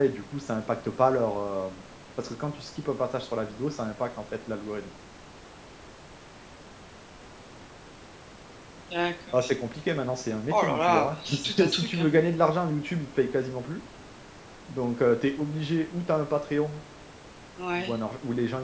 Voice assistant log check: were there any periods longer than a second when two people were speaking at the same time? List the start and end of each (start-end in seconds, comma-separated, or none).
10.5-12.1